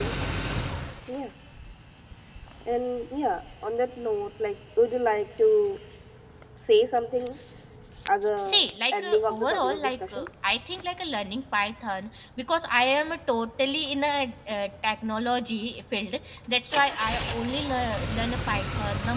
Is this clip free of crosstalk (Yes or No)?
No